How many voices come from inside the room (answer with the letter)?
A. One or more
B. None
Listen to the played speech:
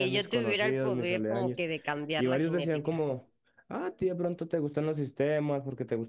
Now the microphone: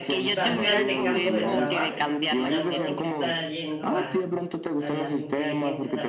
A